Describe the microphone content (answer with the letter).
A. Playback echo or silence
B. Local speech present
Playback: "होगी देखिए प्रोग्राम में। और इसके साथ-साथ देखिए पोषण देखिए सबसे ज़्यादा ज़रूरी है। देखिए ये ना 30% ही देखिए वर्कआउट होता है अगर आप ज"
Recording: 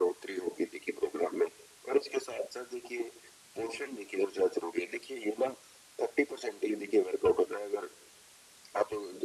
A